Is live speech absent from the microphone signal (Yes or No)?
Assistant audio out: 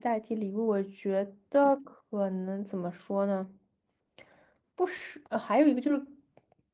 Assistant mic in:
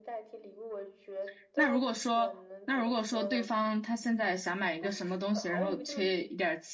No